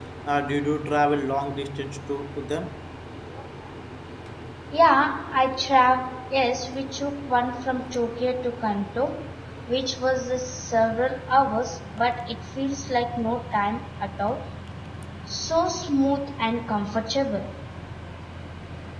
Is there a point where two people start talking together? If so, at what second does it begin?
none

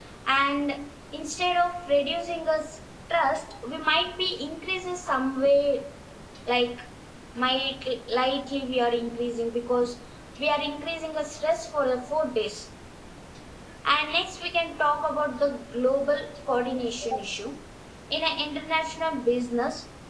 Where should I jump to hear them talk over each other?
none

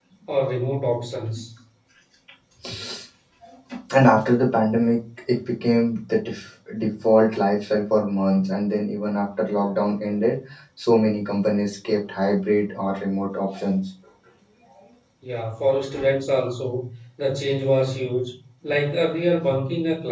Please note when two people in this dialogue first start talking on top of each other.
none

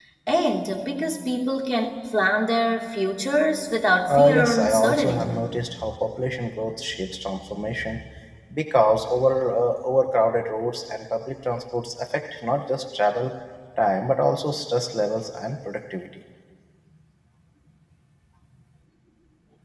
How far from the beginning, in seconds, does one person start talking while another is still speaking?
4.1 s

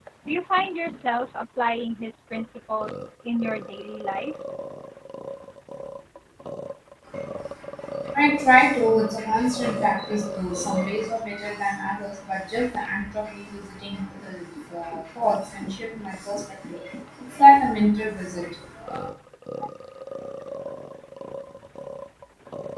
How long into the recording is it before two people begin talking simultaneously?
none

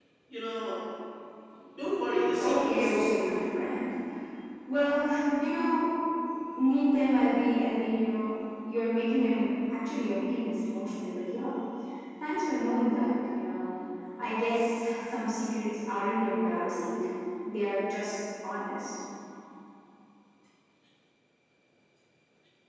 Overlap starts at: 2.4 s

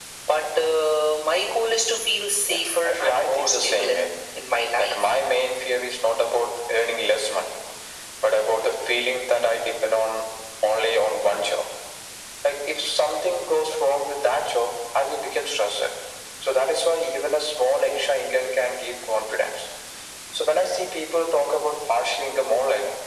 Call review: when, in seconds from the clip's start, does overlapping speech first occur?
2.4 s

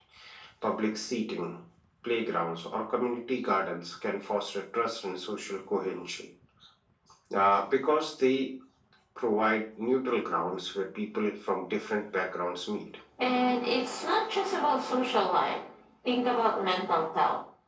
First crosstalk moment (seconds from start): none

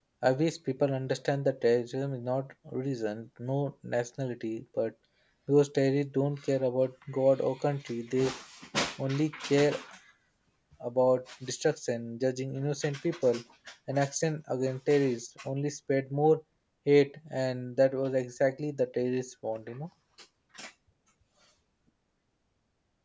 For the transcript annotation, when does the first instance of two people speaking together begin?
none

